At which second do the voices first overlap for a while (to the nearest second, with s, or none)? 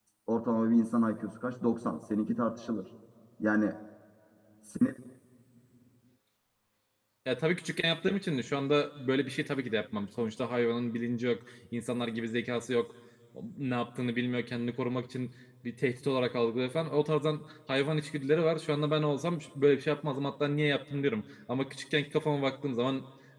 none